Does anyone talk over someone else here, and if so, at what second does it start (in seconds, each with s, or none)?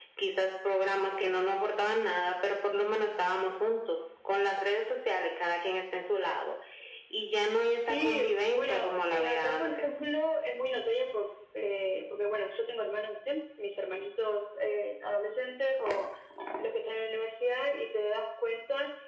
7.9 s